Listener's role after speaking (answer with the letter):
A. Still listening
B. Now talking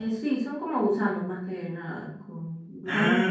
B